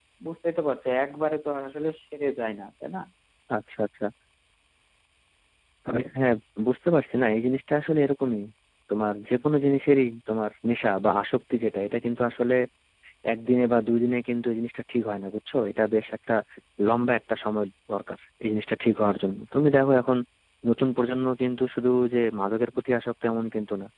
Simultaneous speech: No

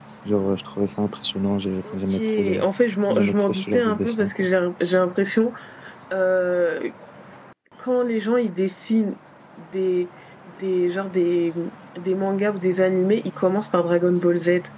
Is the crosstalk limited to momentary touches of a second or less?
No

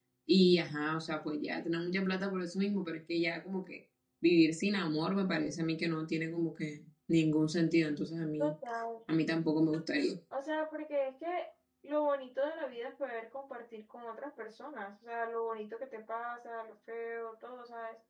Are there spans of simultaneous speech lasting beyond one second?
No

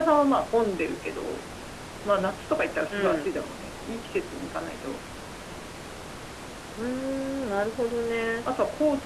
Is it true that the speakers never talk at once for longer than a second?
Yes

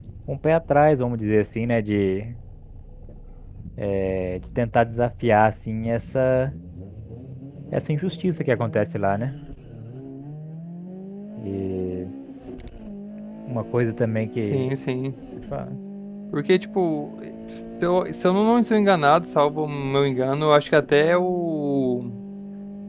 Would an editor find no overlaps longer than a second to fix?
Yes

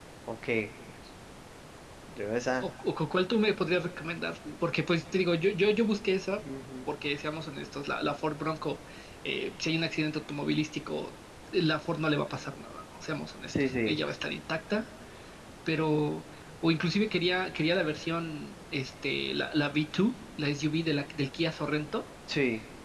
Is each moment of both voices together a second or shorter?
Yes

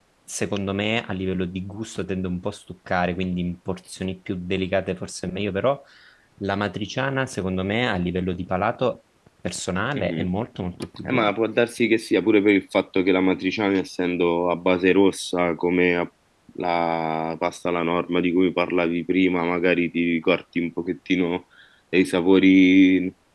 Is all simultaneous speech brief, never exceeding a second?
Yes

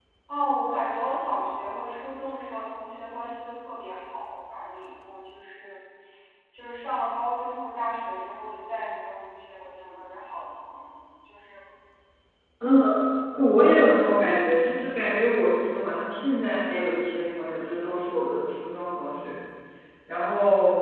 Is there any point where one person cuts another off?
No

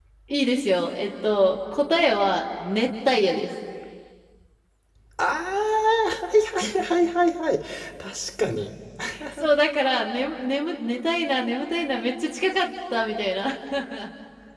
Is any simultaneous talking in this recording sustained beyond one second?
No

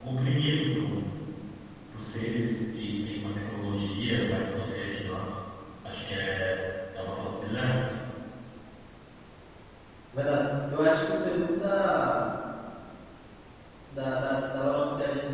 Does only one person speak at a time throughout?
Yes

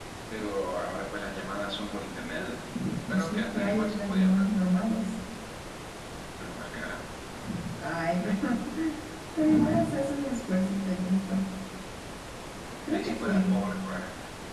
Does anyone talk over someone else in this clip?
Yes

